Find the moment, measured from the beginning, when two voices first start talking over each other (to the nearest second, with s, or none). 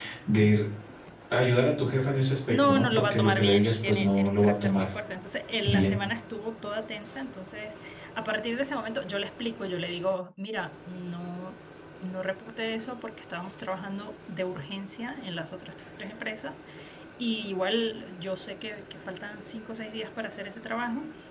2 s